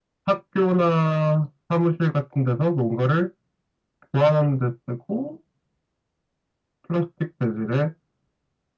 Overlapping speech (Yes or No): No